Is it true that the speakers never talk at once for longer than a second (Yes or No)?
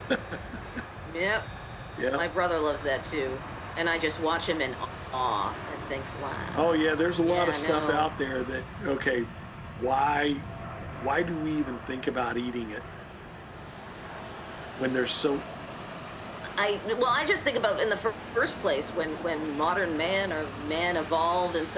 No